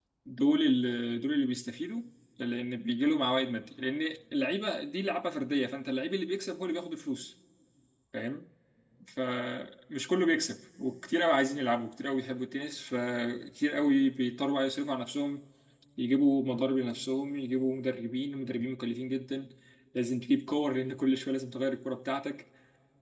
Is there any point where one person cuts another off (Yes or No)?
No